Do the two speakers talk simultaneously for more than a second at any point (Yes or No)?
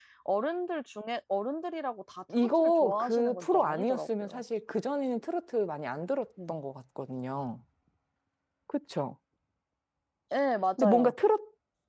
Yes